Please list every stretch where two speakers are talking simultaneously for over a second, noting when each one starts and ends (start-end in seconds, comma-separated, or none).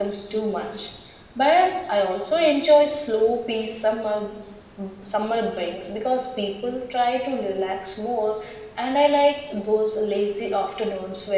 none